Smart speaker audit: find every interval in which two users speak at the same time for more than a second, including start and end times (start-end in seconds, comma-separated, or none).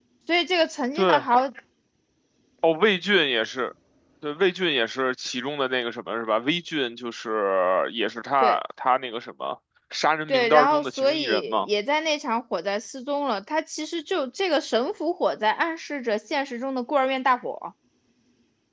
10.3-11.7